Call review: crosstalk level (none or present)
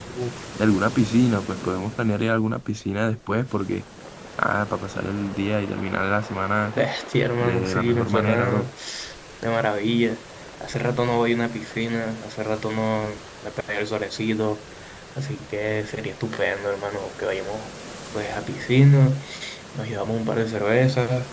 present